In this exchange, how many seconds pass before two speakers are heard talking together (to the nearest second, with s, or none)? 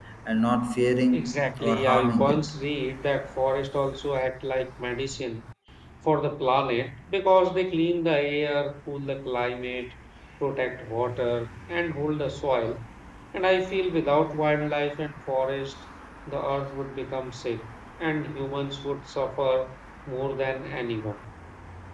1 s